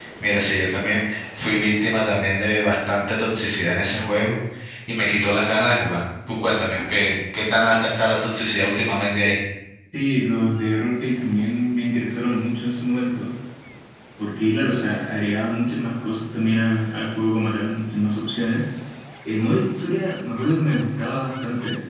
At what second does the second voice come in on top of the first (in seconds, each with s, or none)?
none